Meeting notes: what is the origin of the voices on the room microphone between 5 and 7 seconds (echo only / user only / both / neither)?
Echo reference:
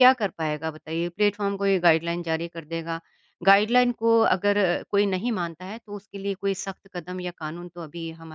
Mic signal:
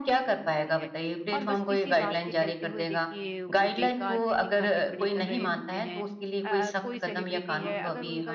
both